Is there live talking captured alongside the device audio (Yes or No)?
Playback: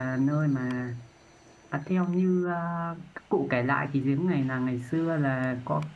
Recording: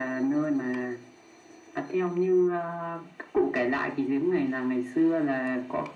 No